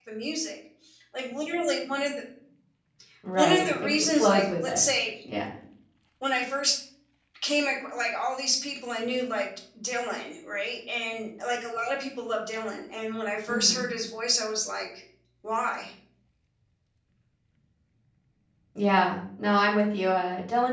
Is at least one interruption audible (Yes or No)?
Yes